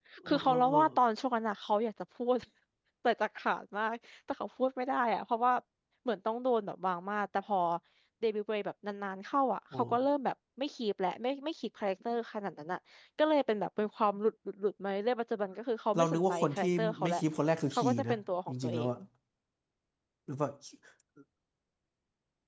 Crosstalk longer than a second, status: present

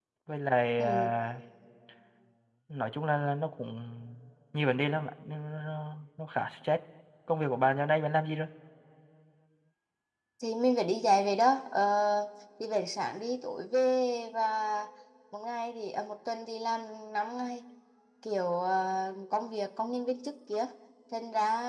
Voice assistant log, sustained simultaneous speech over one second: none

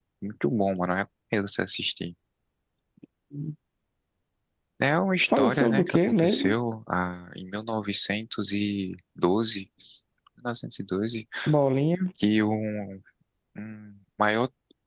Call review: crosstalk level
present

